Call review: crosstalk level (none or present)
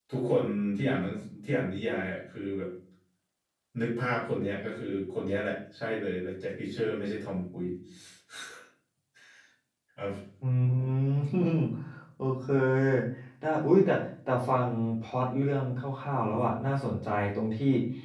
none